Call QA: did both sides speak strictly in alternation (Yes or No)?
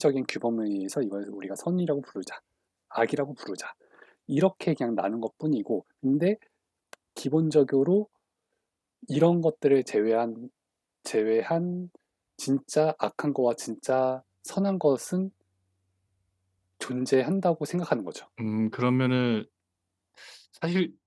Yes